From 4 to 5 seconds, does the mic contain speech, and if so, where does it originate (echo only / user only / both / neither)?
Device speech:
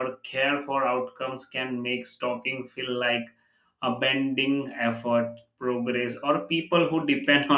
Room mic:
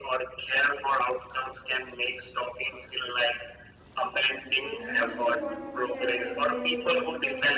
both